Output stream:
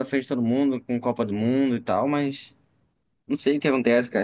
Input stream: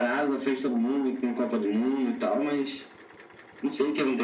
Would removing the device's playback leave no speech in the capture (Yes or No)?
Yes